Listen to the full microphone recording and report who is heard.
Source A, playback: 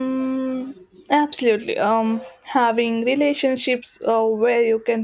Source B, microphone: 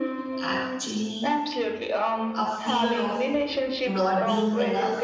both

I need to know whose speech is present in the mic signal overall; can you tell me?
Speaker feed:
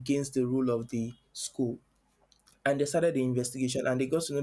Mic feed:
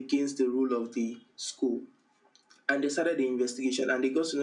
echo only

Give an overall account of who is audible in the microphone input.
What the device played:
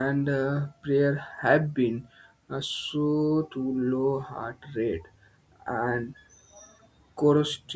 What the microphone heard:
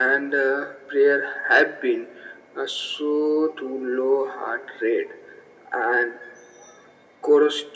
echo only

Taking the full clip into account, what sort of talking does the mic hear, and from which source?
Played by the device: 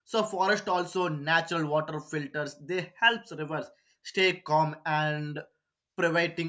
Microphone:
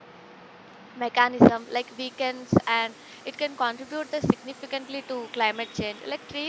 user only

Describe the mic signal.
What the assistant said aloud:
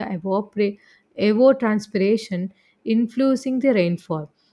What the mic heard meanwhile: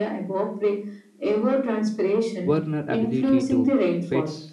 both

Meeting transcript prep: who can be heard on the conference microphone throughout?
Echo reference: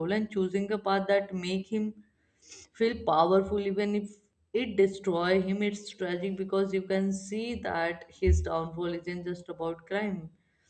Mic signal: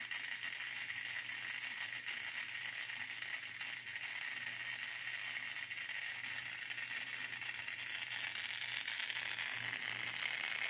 neither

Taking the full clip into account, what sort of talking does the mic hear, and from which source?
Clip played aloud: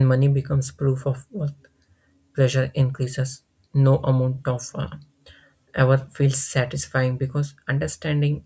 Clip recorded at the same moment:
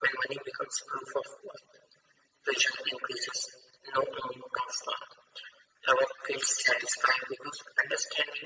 echo only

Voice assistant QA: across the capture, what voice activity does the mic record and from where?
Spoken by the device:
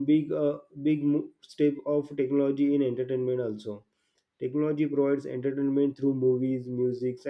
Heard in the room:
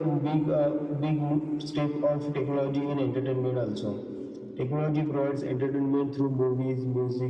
echo only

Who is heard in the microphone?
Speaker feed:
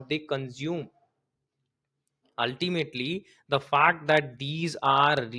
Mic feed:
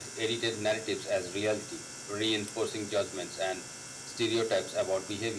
user only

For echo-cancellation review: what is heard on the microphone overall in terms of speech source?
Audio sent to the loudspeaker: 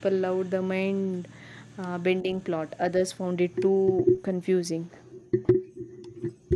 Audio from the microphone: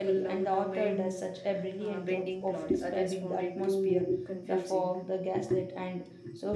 both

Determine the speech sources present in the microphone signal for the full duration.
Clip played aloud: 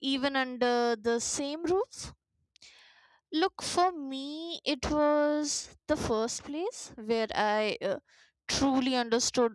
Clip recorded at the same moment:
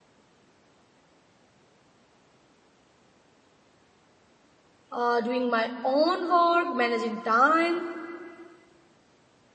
user only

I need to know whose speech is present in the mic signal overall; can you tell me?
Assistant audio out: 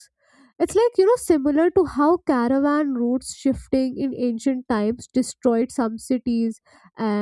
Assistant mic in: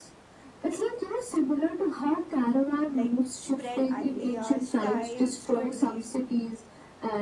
both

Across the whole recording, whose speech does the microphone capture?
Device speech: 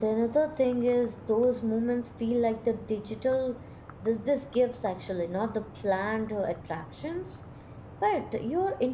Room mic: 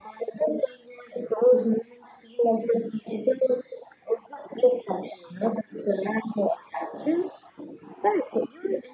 echo only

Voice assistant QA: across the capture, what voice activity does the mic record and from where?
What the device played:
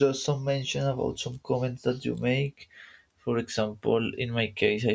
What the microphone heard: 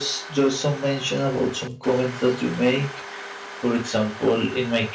echo only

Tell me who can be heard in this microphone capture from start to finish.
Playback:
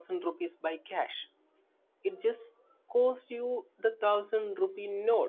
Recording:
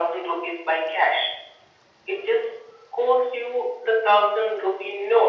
echo only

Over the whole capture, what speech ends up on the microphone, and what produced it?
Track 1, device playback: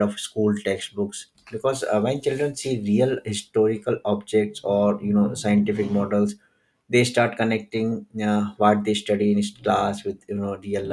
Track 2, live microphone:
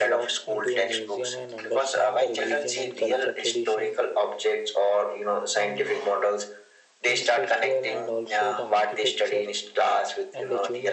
both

